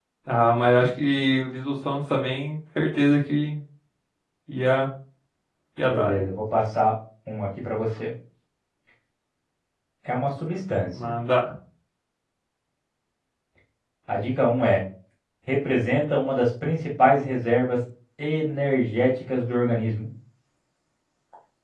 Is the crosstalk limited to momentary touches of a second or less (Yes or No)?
Yes